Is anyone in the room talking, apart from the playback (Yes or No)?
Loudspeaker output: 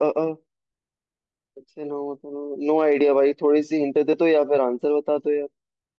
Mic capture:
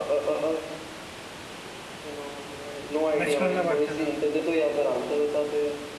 Yes